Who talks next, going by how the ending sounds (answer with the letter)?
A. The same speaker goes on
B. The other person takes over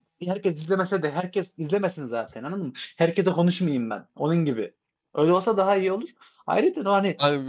B